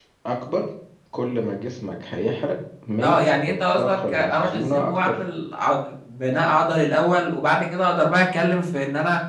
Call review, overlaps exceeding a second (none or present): present